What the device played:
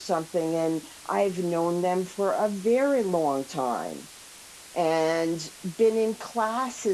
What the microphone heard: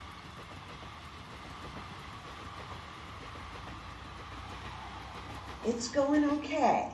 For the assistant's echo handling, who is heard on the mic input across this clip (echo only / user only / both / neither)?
user only